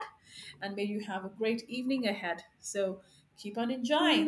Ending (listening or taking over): taking over